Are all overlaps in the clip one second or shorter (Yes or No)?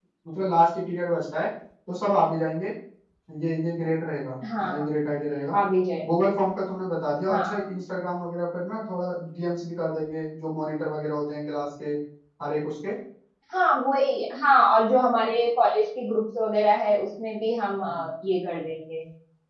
Yes